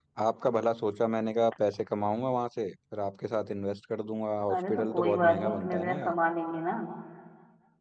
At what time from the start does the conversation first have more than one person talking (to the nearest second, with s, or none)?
4 s